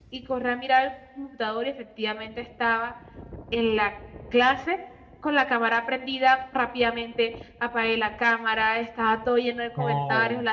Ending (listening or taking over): listening